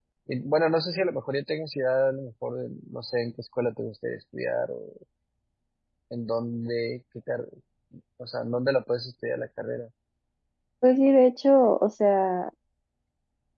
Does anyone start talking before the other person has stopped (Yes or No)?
No